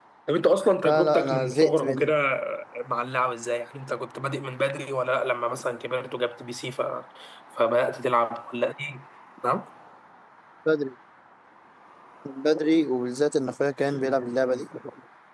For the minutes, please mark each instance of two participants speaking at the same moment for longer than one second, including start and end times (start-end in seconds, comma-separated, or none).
0.8-2.1